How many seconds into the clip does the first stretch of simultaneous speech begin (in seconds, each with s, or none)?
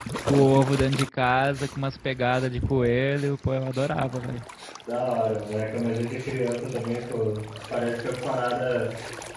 none